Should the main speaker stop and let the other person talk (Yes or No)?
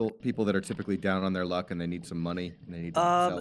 Yes